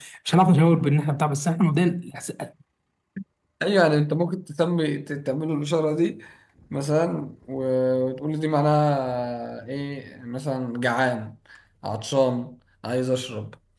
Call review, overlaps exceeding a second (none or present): none